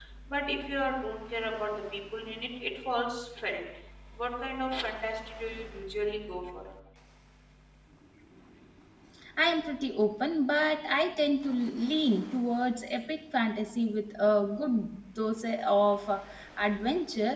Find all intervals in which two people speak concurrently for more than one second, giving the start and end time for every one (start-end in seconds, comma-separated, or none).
none